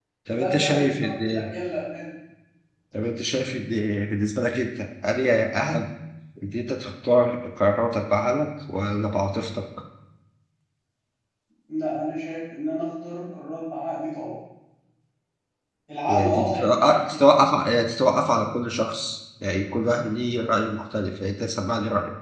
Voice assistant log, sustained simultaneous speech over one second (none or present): present